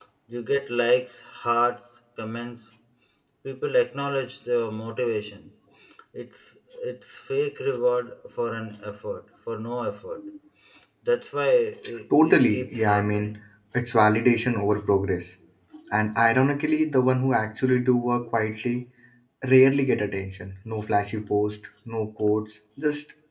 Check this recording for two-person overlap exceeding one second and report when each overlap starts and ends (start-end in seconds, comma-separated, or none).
12.2-13.4